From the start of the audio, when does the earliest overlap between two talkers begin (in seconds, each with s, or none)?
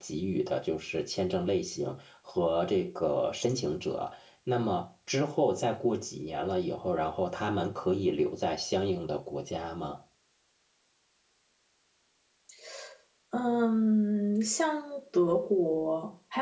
none